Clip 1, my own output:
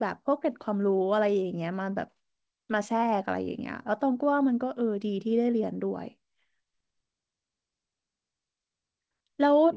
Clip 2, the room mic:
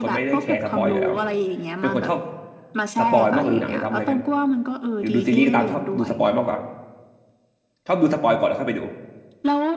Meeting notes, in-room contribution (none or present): present